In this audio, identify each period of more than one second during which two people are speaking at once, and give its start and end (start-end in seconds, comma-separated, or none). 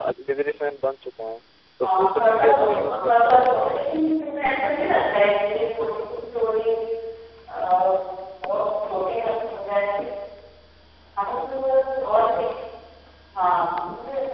1.8-3.7